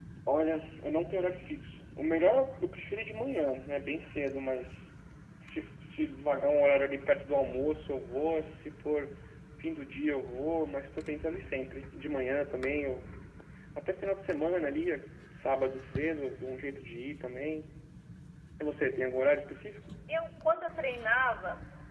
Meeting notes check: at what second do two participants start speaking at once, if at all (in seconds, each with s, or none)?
none